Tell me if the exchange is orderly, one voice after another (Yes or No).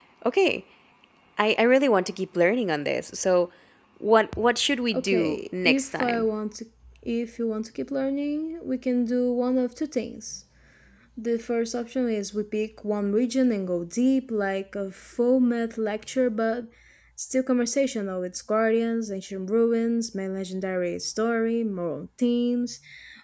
No